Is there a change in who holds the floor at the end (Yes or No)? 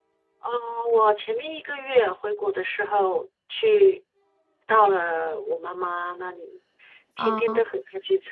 No